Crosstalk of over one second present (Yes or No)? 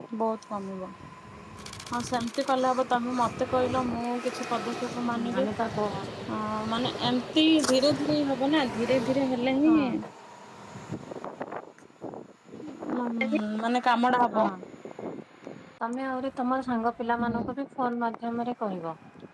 No